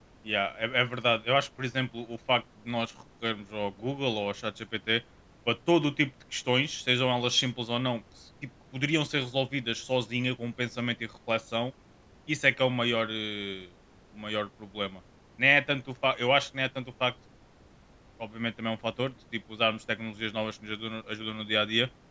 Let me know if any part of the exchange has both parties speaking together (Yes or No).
No